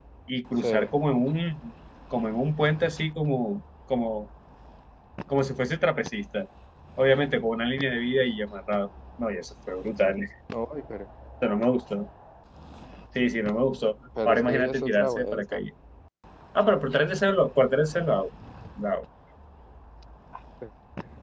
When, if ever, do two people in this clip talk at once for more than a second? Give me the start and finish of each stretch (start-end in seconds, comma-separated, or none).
14.2-15.6